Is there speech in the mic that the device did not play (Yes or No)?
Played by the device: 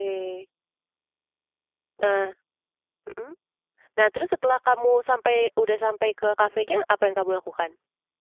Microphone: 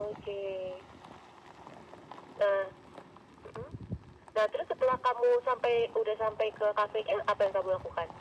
No